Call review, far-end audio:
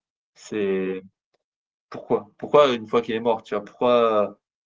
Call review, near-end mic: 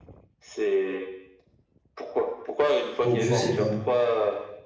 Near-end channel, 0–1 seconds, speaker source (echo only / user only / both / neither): echo only